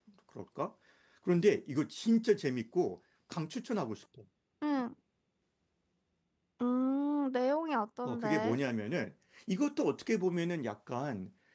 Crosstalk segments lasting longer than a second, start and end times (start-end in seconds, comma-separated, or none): none